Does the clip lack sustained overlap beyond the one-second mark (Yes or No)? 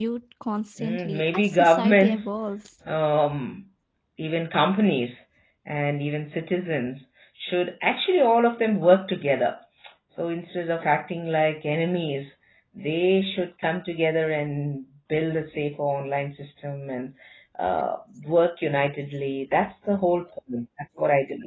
No